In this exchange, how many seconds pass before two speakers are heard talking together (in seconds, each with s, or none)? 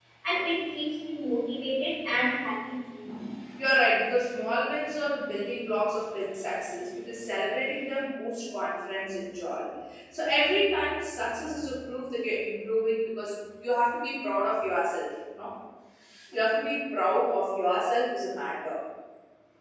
none